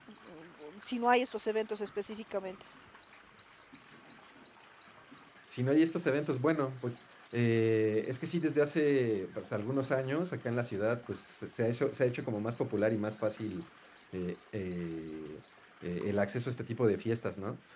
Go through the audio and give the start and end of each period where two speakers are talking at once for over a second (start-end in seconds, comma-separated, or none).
none